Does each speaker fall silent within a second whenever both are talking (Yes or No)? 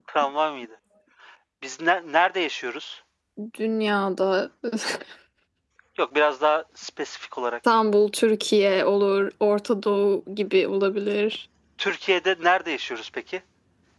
Yes